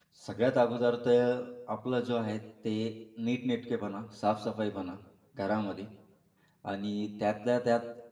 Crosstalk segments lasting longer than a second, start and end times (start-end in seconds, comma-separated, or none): none